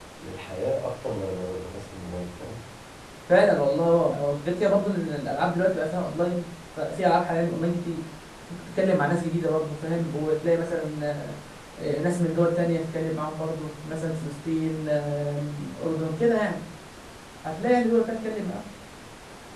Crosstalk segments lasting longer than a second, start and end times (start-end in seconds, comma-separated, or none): none